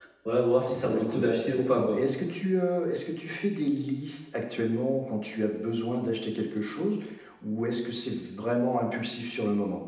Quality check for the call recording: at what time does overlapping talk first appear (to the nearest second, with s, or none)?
1 s